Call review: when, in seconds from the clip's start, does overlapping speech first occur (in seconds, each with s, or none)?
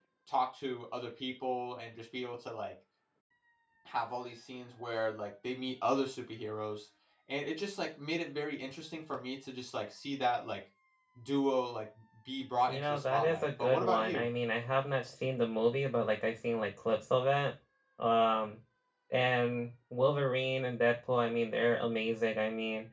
12.7 s